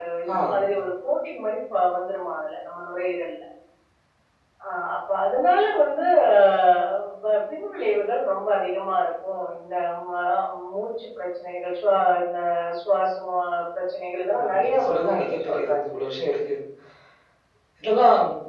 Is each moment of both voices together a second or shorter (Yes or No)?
No